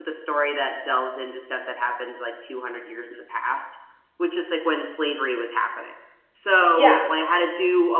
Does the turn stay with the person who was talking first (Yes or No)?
Yes